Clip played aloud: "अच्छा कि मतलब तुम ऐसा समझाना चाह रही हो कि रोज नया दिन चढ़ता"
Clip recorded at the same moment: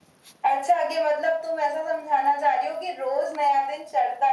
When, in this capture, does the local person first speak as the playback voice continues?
none

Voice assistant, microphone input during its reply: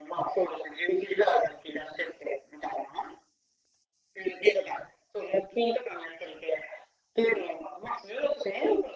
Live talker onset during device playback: none

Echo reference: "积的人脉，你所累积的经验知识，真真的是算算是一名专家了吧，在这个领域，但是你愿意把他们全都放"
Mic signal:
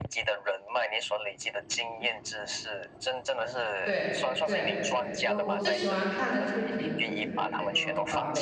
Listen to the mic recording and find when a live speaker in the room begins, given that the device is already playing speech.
3.8 s

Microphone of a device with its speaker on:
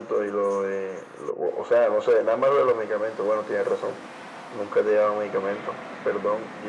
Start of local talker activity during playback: none

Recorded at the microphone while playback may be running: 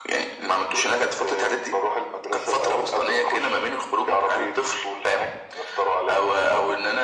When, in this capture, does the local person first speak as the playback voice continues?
none

